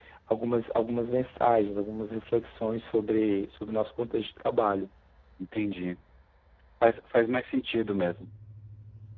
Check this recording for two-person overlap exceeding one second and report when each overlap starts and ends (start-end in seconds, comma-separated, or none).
none